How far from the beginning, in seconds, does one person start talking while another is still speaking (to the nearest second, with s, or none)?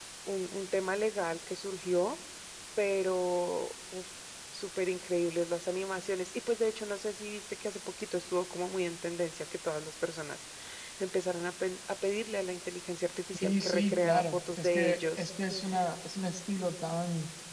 13 s